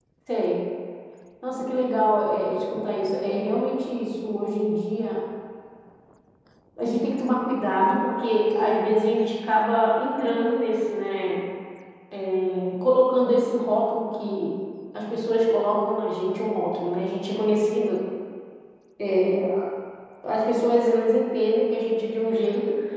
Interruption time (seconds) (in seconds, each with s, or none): none